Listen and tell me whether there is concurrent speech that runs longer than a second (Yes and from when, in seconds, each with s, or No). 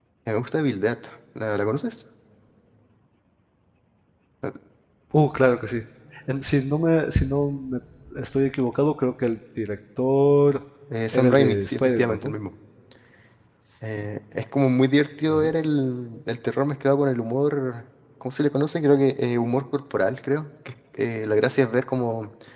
Yes, from 11.1 s